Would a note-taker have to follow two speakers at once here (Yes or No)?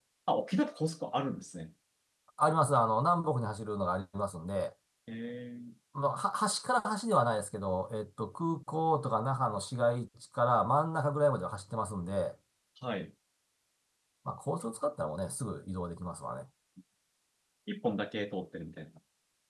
No